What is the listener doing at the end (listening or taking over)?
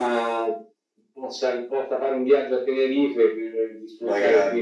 listening